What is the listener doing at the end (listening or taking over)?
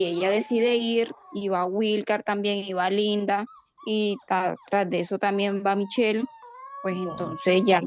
listening